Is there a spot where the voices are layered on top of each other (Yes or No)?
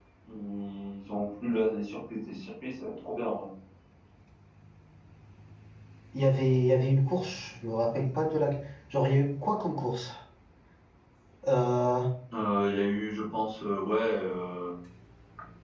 No